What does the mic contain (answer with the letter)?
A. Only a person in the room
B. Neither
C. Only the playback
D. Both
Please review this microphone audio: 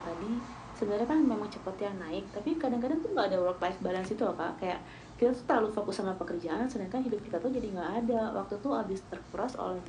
C